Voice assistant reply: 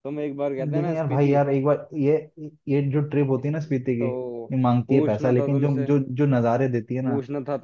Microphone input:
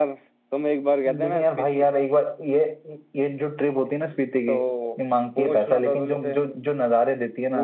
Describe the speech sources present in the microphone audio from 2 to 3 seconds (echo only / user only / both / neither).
echo only